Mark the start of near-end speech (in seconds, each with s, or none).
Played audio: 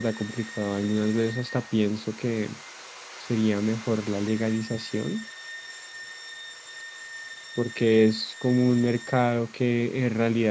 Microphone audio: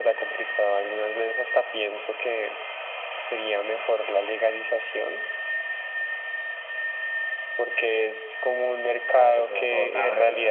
9.1 s